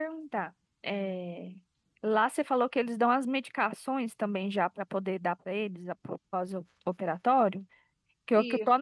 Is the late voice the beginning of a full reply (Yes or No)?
No